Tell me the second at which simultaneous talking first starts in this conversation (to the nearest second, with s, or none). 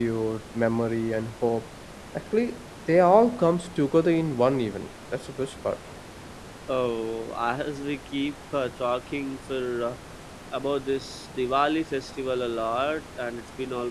none